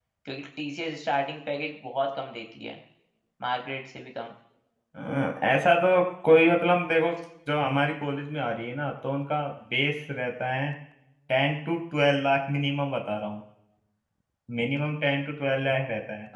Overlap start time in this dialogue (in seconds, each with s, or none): none